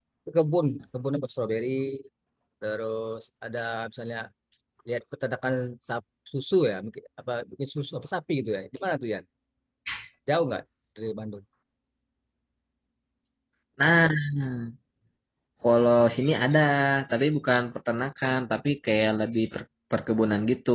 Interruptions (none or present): none